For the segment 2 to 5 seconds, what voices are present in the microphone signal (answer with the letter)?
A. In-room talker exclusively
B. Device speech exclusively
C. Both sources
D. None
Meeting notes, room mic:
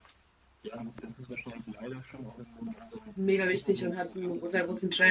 C